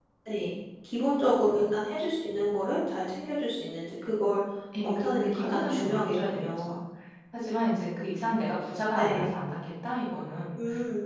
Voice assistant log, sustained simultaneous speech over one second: present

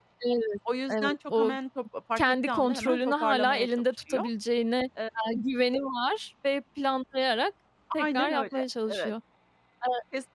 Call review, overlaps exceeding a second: present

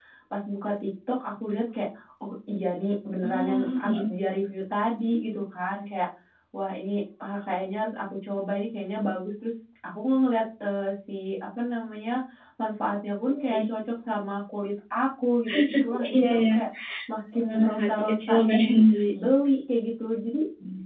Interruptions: present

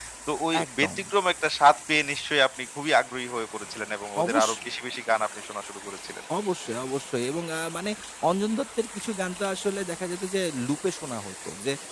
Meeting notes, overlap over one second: none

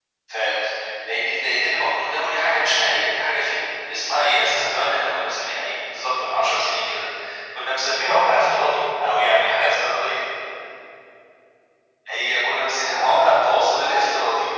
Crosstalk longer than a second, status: present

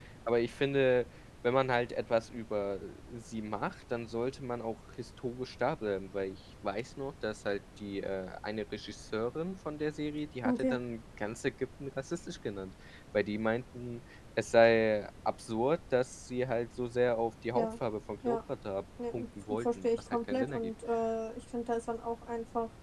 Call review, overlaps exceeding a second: present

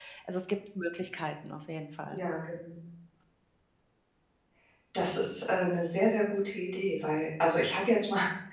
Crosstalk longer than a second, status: none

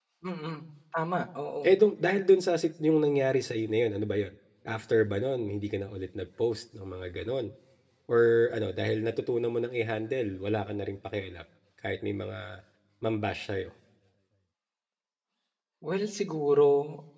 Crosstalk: none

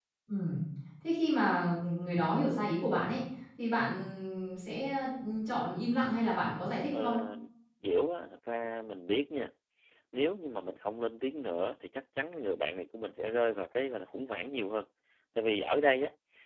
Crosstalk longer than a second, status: none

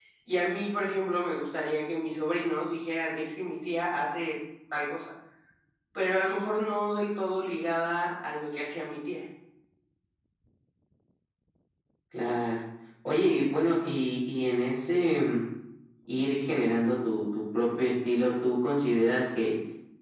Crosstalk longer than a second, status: none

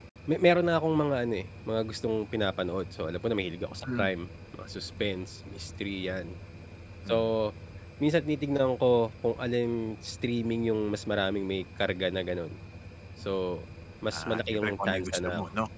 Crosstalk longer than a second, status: present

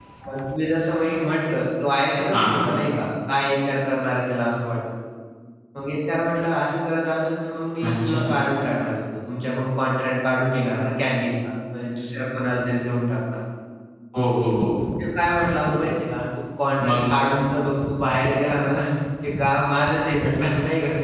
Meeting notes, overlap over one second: none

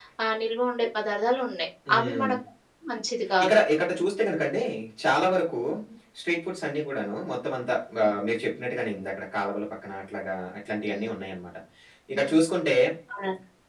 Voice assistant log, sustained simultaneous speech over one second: none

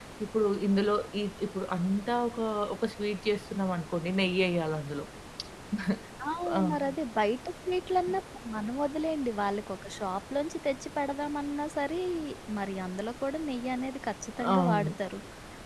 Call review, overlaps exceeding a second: none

